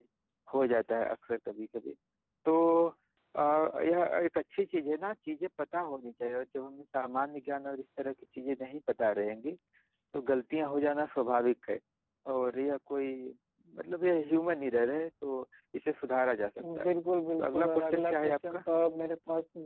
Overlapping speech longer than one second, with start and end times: 17.4-18.6

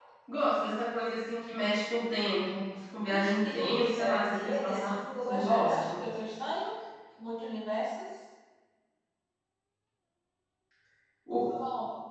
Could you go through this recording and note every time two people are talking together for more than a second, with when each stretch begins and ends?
3.0-6.0

